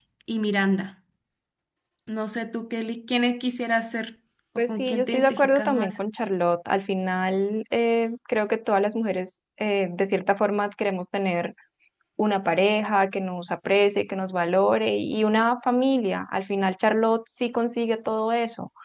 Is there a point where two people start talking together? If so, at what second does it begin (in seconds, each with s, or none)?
4.6 s